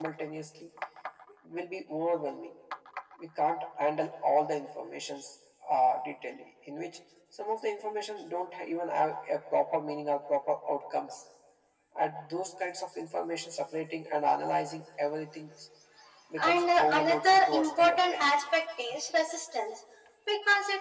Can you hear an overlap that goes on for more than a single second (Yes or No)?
Yes